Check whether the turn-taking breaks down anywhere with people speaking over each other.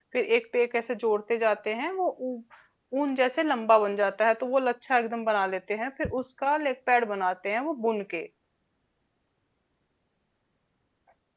No

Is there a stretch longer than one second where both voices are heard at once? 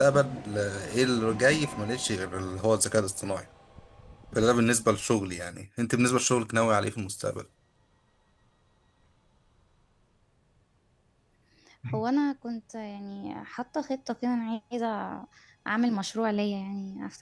No

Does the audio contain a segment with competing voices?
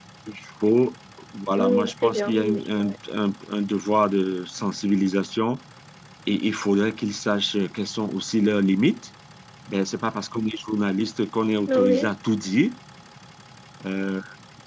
Yes, from 1.6 s

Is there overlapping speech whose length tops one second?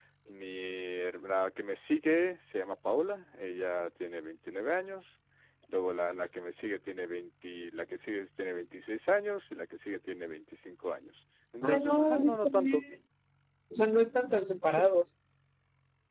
Yes, from 11.6 s

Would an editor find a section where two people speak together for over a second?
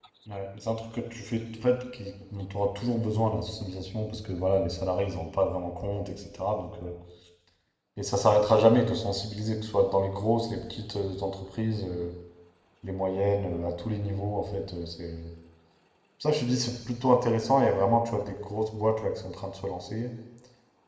No

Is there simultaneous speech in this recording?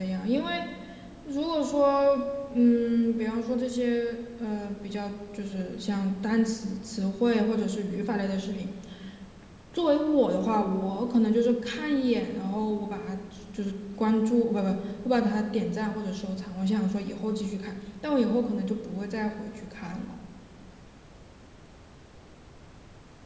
No

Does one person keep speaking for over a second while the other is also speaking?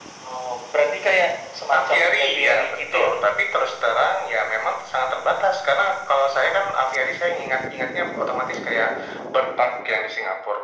Yes, from 1.7 s

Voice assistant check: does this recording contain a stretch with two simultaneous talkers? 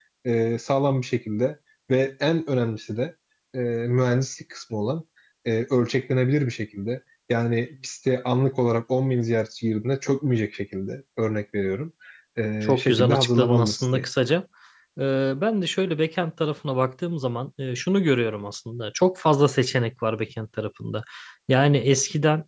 Yes, from 12.6 s

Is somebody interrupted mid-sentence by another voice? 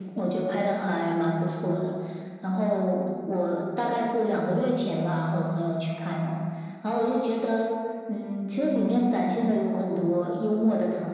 No

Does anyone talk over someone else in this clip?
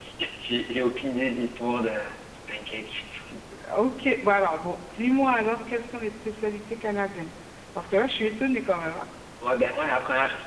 No

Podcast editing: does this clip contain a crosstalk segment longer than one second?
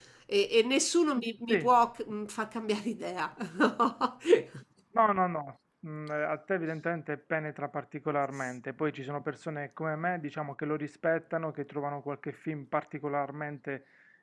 No

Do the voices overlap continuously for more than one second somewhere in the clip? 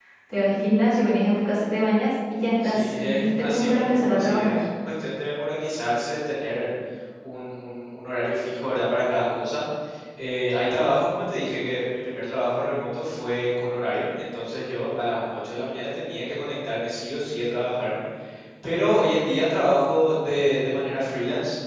Yes, from 2.6 s

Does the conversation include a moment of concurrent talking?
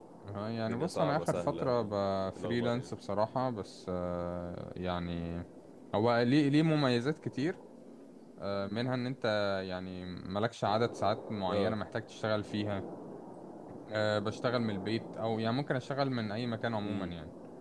Yes, from 0.7 s

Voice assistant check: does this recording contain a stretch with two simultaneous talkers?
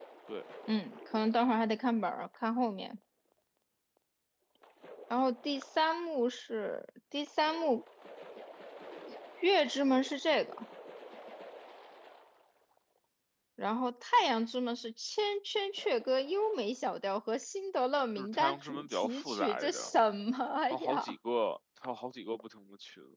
Yes, from 18.2 s

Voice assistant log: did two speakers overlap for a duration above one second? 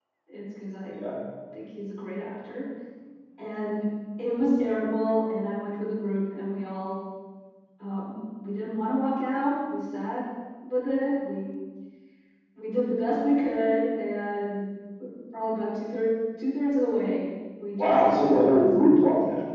Yes, from 17.8 s

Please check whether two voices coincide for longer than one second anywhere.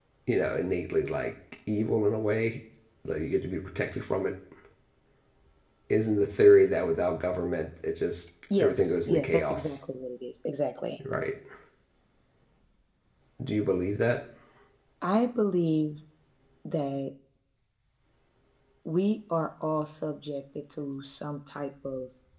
Yes, from 8.5 s

